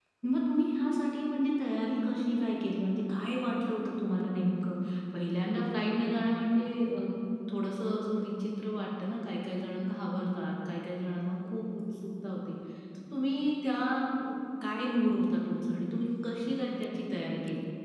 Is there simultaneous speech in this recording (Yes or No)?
No